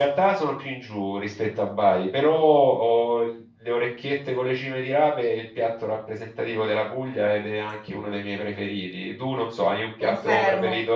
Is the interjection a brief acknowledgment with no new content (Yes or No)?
No